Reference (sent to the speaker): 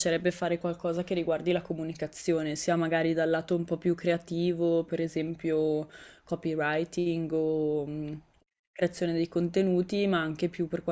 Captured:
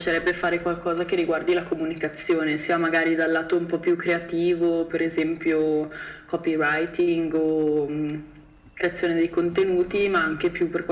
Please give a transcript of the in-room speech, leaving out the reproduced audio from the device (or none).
none